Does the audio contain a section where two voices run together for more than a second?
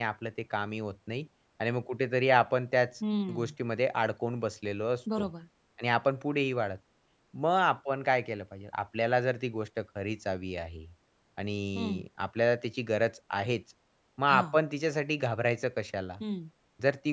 No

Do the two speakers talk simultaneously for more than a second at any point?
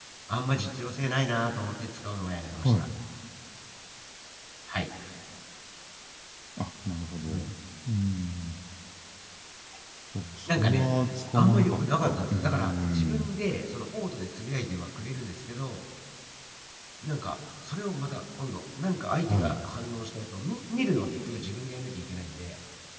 Yes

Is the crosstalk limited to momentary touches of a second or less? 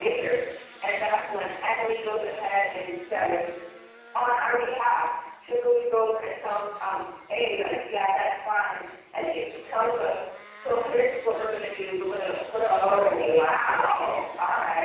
No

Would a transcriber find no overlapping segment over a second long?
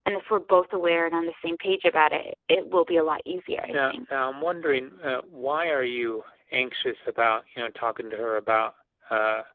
Yes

